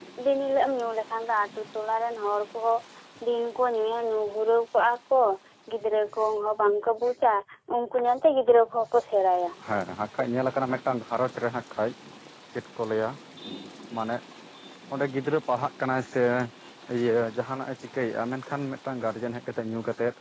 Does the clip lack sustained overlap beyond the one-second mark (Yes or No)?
Yes